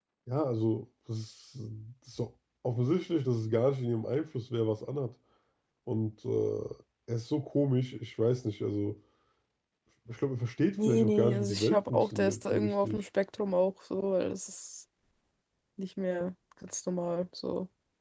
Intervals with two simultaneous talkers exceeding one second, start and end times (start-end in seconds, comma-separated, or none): 10.8-13.0